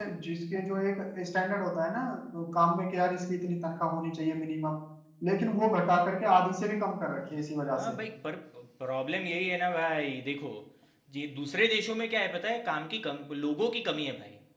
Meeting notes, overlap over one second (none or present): none